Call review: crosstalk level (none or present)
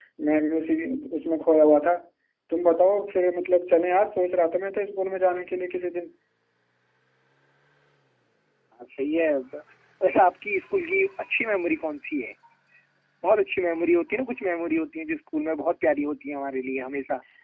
none